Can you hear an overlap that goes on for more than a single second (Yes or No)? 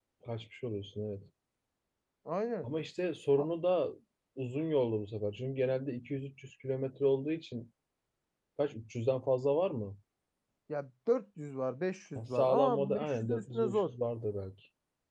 Yes